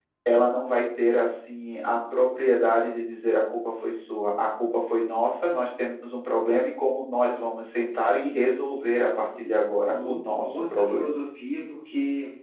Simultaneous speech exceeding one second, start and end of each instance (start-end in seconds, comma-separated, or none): 9.2-11.0